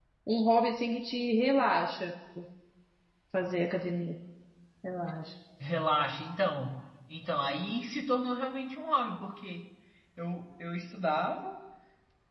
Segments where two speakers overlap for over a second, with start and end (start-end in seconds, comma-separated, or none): none